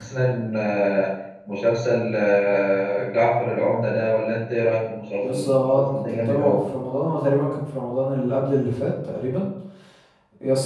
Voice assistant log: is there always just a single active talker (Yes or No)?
No